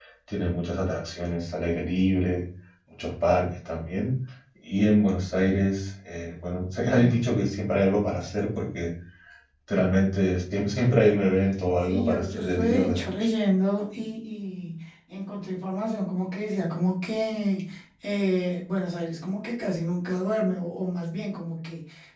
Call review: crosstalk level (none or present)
present